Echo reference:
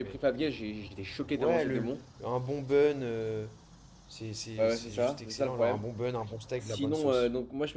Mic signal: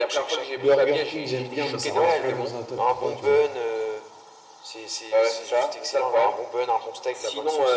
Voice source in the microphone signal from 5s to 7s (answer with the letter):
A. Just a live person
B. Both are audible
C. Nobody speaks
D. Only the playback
D